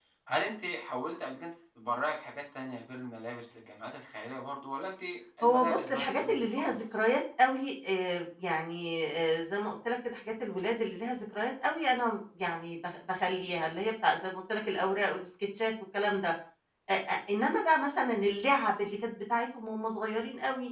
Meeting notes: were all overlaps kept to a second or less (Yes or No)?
No